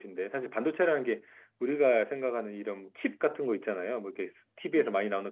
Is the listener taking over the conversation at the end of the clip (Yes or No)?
No